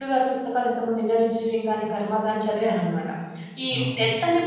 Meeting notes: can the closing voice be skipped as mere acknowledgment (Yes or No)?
Yes